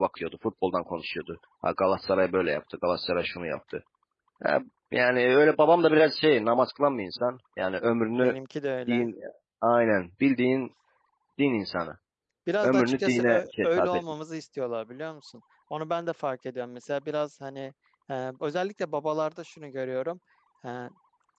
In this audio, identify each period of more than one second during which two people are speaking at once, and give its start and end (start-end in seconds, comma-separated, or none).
12.6-14.0